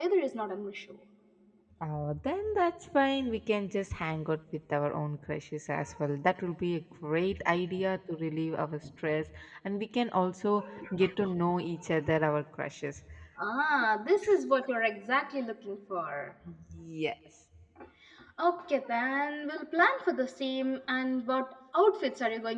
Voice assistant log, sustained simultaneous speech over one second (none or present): none